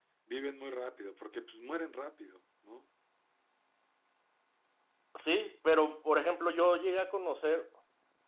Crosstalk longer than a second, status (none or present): none